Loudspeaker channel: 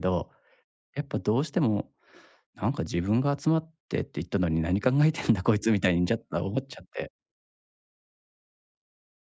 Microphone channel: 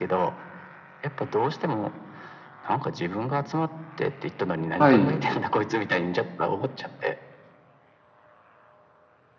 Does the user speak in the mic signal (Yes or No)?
Yes